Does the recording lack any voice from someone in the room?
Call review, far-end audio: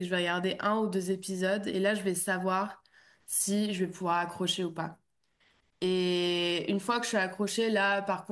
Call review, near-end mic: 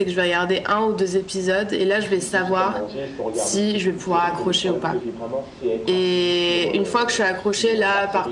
No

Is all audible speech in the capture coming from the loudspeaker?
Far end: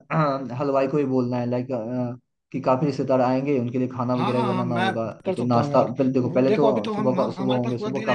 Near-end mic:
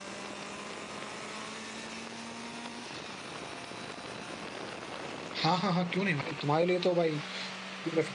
No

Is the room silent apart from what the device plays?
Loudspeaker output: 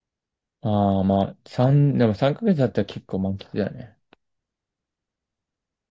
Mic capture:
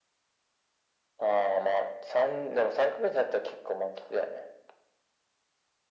Yes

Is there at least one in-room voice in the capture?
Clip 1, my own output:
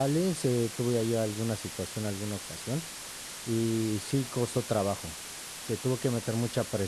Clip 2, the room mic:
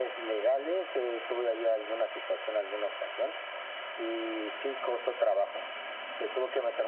No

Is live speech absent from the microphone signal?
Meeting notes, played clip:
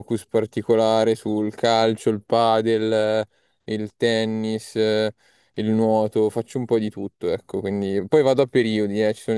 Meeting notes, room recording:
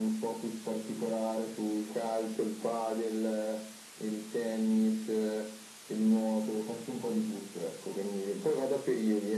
Yes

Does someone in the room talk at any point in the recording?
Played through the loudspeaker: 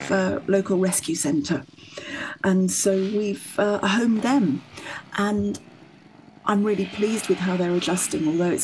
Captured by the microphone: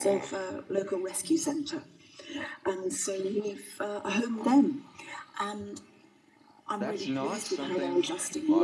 Yes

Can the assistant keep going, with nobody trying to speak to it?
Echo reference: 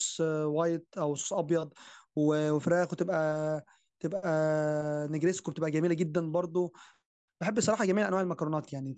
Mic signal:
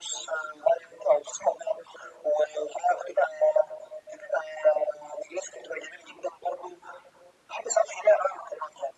Yes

